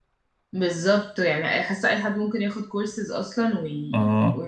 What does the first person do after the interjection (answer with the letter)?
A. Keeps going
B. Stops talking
B